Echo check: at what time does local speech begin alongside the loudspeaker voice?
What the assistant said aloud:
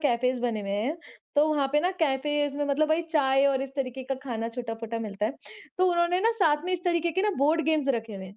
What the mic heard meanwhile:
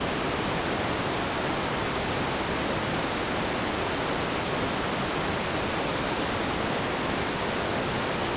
none

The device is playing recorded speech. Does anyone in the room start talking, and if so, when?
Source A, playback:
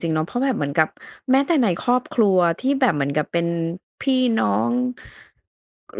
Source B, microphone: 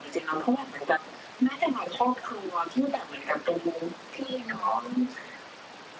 none

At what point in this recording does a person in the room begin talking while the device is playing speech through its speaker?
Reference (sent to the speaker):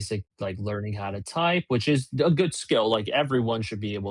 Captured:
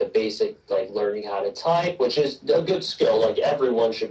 none

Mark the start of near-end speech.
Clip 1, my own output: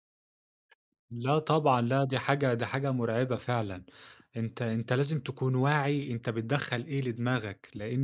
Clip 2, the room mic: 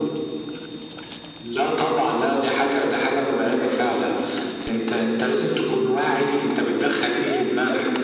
none

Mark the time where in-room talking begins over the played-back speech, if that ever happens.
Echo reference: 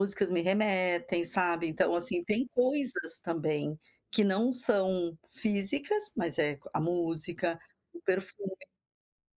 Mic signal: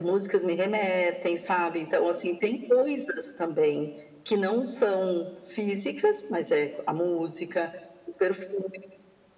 none

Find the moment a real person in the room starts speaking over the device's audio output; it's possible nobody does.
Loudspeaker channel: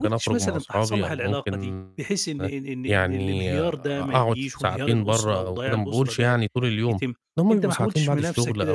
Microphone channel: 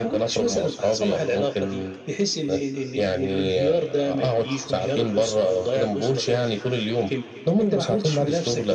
none

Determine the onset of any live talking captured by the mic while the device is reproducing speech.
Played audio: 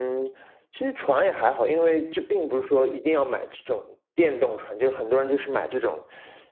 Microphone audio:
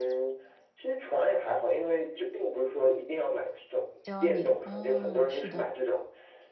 4.0 s

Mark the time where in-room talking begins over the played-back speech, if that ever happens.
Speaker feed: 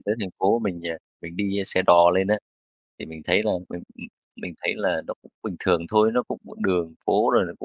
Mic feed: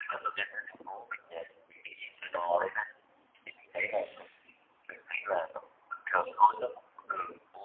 none

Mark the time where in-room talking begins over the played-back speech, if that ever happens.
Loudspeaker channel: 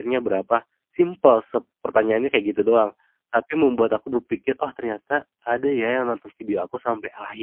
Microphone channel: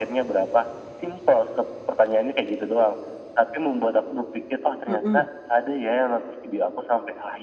4.9 s

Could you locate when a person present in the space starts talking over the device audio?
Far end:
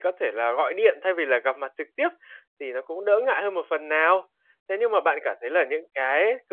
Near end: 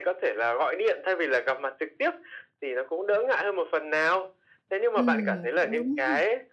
5.0 s

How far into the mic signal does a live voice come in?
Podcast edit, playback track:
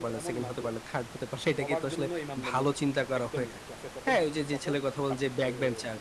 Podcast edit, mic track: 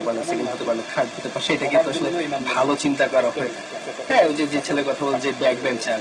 none

